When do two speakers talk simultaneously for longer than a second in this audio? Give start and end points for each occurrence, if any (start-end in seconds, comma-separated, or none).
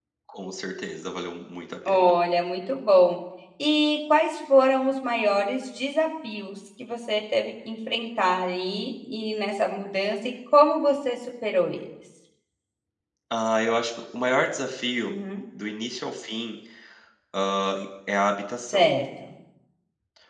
none